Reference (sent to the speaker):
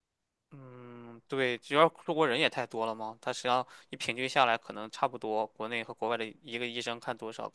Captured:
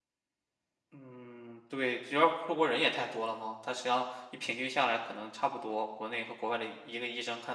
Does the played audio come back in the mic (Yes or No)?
Yes